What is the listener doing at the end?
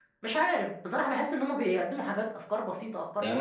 taking over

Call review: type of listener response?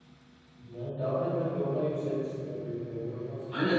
taking over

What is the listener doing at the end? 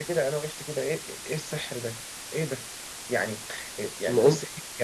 listening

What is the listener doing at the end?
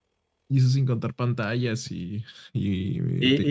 taking over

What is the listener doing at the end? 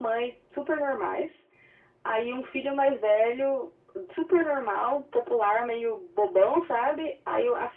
listening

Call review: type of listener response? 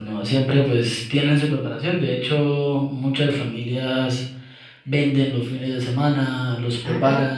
listening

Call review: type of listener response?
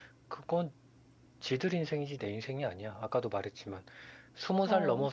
listening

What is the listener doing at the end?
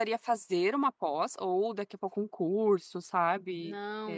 taking over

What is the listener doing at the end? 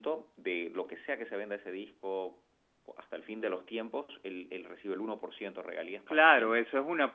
taking over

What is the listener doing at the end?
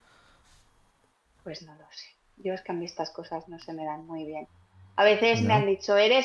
listening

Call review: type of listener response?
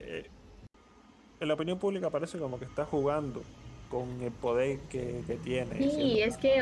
taking over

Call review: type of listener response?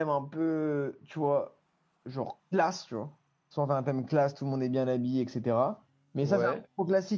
listening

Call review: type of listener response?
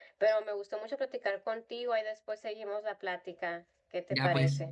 taking over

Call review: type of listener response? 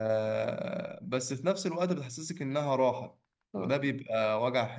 listening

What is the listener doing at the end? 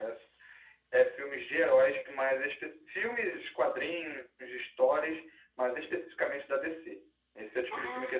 listening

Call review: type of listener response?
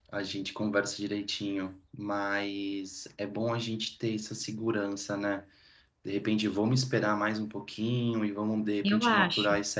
listening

